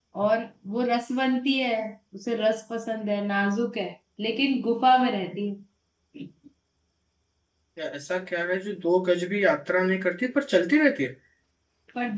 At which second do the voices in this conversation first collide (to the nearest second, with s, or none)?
none